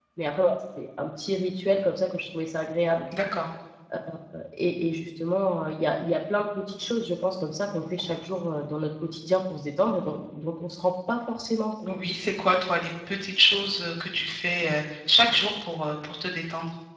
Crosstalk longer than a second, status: none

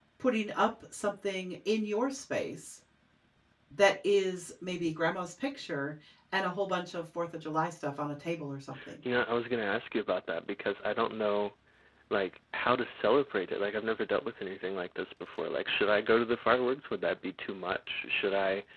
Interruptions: none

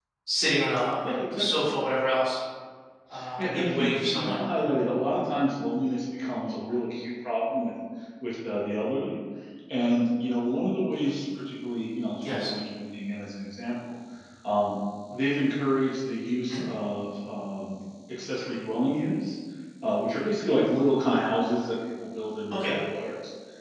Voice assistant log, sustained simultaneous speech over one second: present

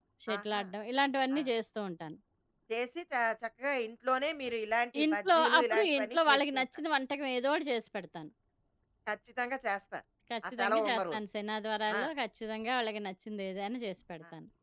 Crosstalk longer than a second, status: present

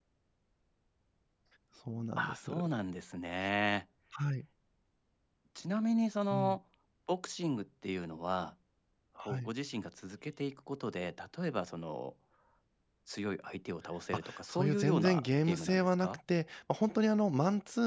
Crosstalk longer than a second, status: present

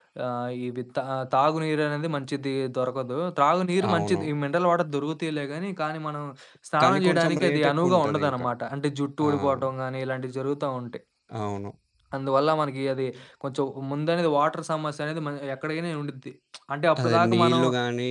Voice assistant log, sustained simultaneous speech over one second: present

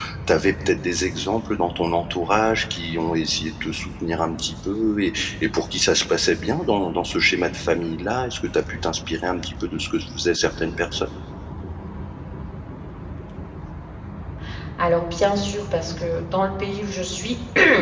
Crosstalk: none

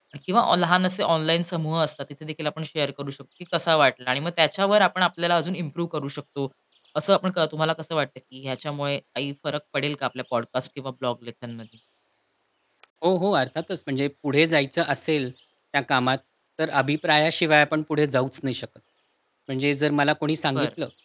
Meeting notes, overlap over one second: none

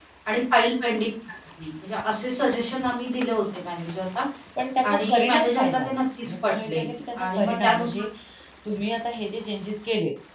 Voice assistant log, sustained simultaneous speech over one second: present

